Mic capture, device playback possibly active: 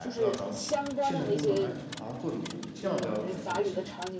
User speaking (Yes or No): Yes